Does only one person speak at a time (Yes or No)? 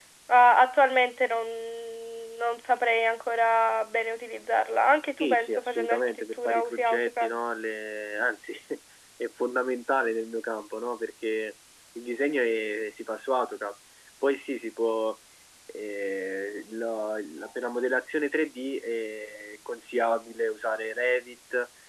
No